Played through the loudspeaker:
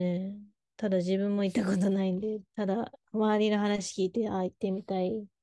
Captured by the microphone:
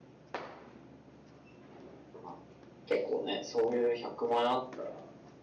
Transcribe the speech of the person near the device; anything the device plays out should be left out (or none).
まあ、結構ね、そういう100万円あったら、